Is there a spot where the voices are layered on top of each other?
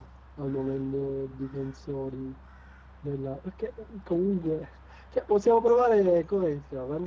No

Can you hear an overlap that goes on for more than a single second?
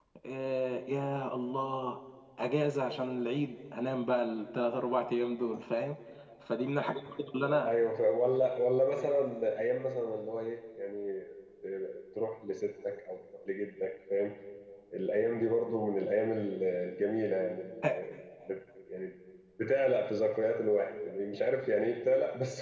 No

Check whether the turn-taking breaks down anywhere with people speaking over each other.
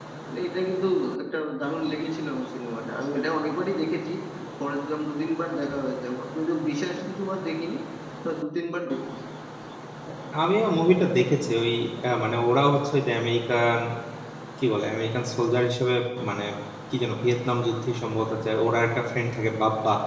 No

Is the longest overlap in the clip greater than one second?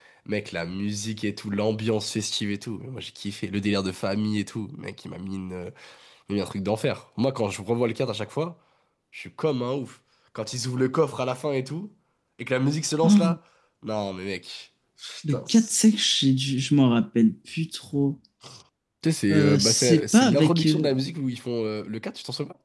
Yes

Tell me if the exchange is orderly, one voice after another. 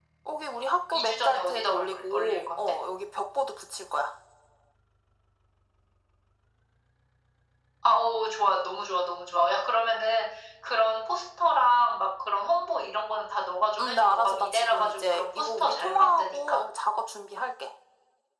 No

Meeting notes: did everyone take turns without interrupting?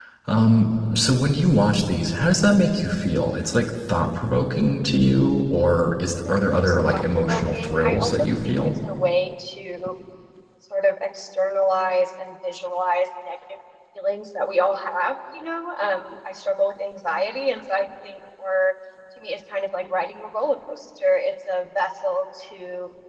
No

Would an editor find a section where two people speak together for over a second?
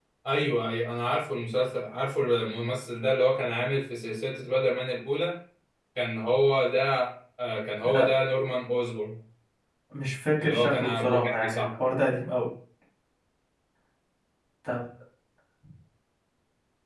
Yes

